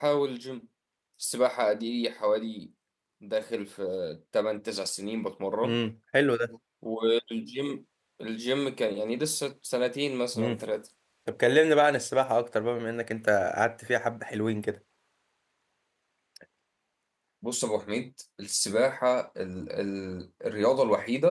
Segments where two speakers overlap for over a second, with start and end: none

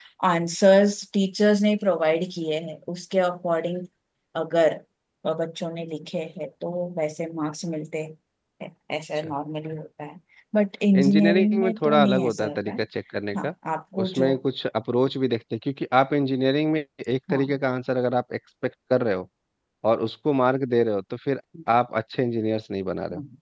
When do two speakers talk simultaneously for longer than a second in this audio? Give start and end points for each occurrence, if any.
11.0-12.8

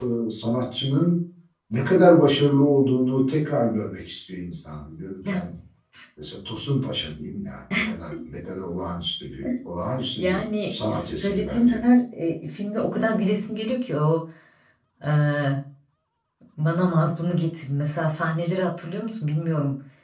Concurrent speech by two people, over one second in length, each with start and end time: 10.2-11.8

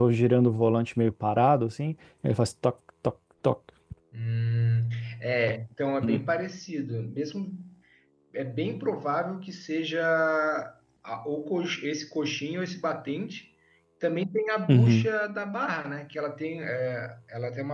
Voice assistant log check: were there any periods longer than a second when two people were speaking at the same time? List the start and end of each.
none

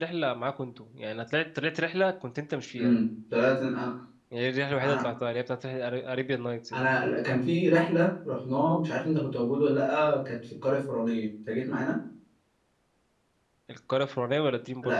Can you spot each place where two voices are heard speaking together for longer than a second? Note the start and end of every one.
none

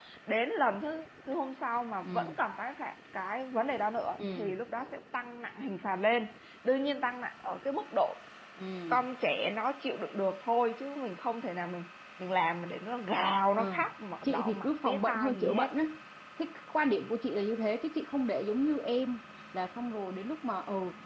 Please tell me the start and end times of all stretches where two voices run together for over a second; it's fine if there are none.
14.2-15.7

